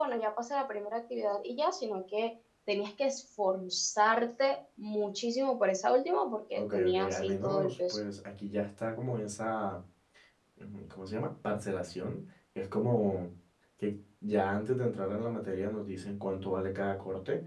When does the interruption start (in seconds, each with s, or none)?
6.6 s